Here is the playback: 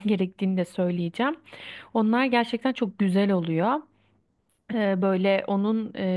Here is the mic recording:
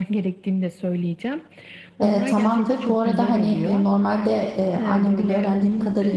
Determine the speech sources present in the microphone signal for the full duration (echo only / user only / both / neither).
both